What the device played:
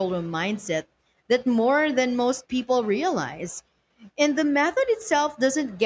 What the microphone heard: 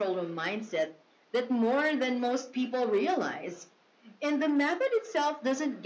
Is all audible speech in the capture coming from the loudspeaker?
Yes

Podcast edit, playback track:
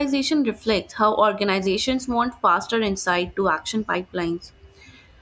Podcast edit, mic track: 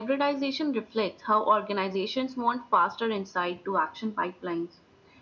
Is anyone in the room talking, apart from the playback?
No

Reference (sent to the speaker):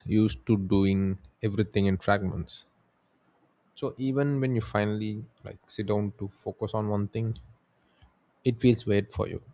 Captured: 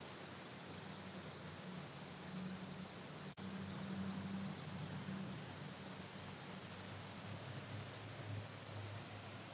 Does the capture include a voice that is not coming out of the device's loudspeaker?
No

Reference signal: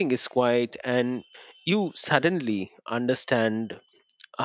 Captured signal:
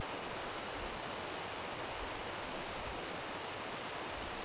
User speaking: No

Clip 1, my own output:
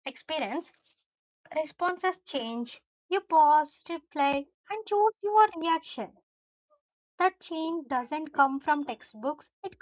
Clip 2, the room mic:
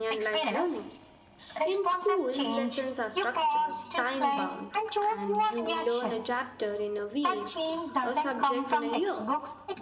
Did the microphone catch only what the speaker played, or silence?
No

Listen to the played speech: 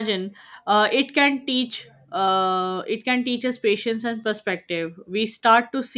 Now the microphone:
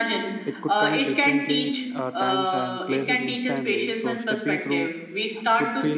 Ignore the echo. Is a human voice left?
Yes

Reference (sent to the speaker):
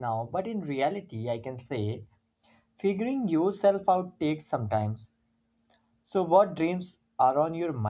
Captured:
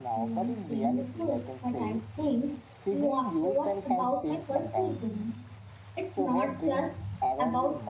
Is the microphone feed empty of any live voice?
No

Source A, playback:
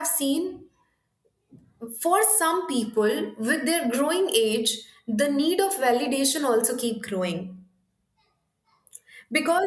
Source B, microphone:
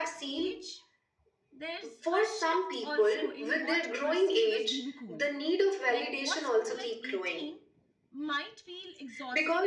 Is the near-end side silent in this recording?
No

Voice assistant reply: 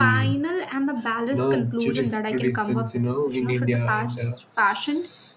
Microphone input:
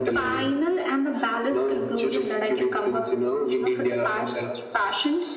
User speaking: No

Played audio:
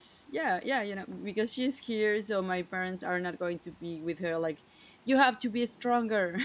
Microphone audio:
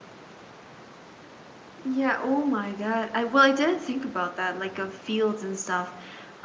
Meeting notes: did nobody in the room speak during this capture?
No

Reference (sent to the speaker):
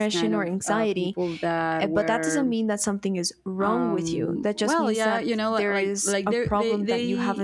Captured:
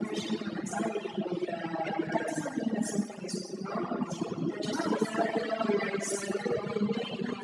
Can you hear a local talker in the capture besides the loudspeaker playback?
No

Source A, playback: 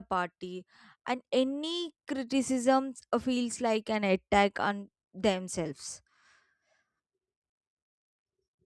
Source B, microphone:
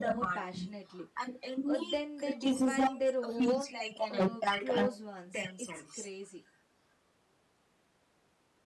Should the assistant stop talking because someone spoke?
Yes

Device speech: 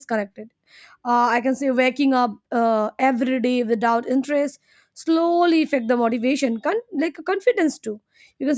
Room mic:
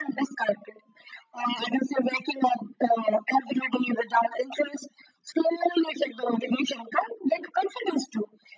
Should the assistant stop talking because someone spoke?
No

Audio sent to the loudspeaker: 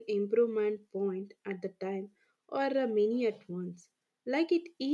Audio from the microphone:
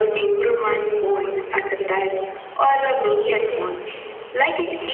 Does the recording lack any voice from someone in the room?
Yes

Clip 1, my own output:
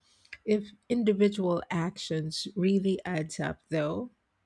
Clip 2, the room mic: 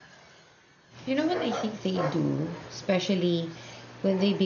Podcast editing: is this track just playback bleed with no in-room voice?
No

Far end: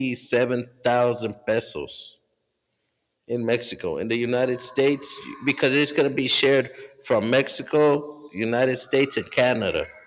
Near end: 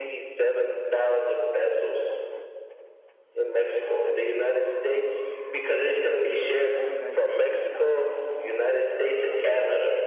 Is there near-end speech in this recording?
Yes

